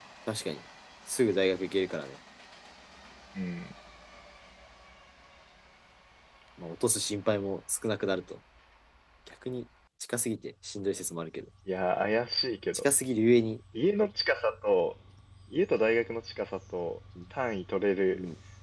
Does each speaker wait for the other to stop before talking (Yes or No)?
Yes